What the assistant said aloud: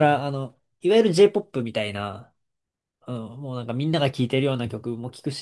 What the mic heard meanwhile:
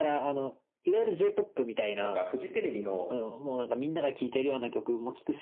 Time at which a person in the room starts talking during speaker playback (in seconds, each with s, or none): 2.0 s